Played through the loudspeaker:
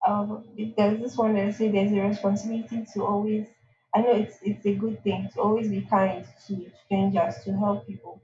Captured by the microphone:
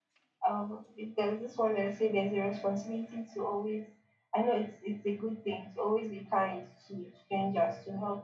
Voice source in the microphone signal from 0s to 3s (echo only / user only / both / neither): echo only